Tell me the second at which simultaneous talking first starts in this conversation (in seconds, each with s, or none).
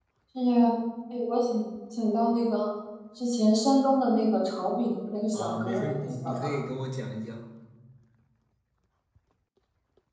5.3 s